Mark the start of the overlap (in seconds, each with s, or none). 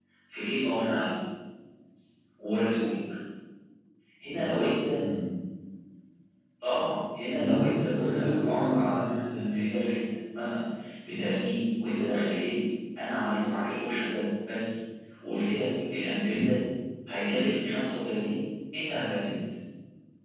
7.3 s